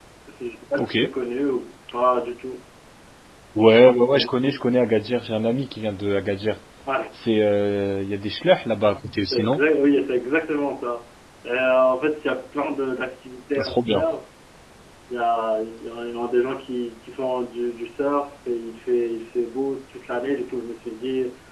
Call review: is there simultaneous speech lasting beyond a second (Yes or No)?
No